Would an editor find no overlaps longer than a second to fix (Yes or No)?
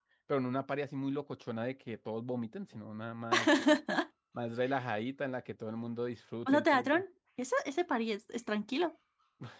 Yes